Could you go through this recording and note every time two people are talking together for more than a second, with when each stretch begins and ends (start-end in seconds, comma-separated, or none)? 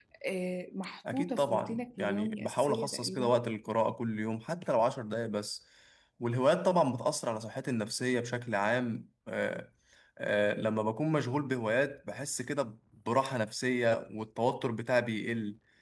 1.1-3.4